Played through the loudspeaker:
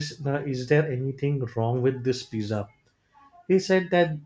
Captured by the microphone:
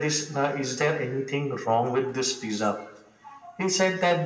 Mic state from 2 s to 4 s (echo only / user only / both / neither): echo only